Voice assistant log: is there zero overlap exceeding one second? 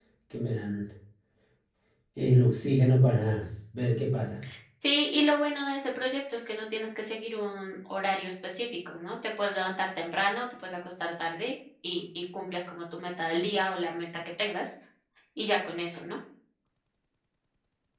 Yes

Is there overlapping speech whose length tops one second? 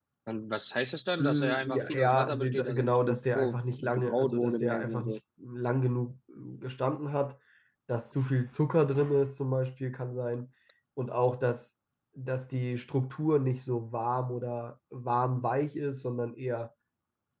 Yes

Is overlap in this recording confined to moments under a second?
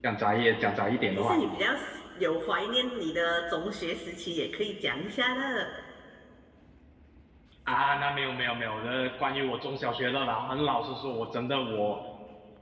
Yes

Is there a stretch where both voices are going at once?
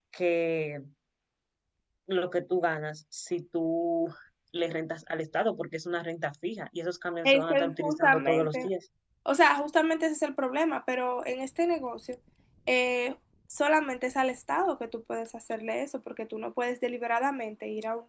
Yes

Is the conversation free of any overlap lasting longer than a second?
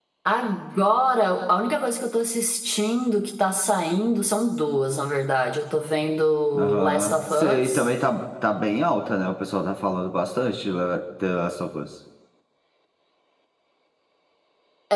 No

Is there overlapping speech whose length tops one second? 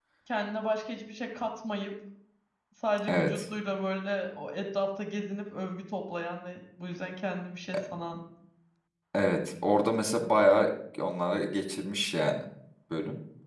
No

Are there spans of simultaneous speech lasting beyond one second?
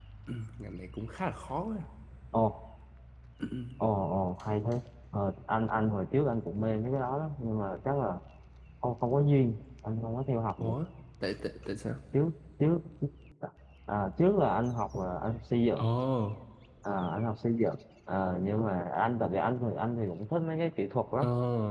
No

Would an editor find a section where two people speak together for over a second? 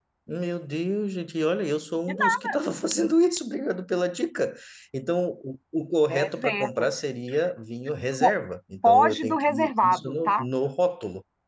Yes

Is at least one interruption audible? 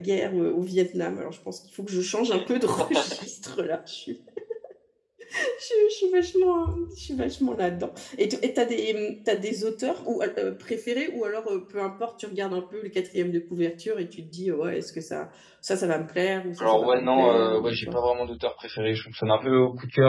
Yes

